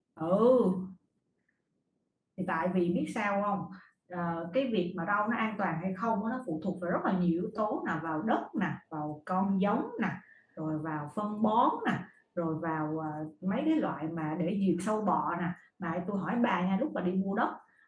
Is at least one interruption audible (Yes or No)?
No